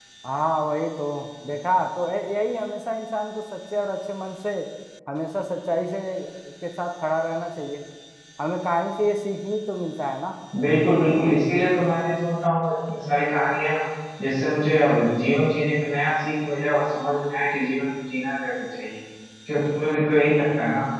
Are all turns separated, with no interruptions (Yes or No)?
Yes